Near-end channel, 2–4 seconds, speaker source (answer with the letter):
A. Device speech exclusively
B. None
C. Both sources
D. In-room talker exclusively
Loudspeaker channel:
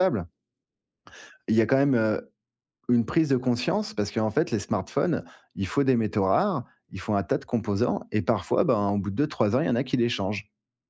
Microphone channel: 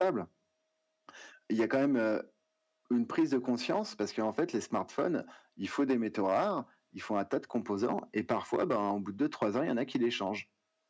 A